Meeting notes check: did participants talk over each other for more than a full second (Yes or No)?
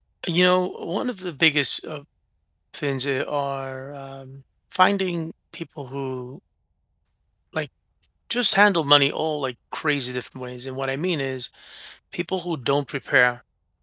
No